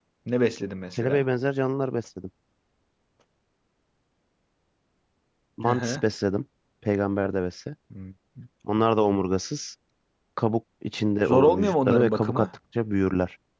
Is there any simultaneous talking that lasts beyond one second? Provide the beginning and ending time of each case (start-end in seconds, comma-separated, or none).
11.2-12.5